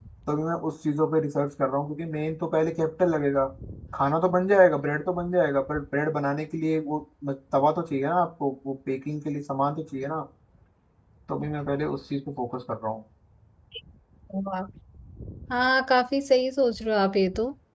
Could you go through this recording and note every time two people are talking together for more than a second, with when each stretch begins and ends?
none

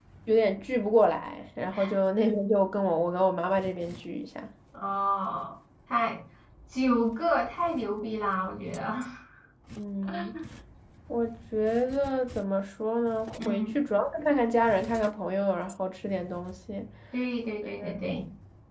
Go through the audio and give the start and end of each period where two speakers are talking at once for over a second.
none

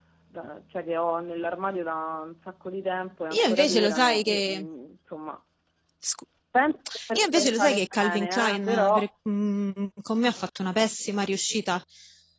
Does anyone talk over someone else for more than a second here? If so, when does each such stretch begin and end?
3.3-4.6, 7.2-9.1

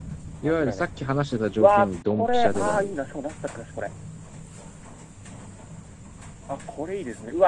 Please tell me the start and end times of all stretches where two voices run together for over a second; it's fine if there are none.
1.6-3.1

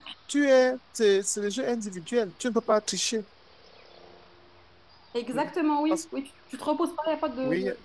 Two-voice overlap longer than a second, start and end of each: none

